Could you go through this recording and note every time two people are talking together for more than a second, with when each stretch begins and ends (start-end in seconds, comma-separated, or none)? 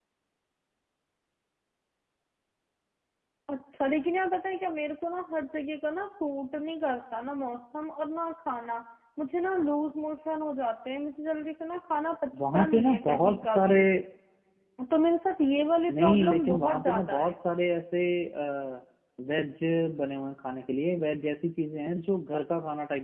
12.5-13.8, 16.0-17.3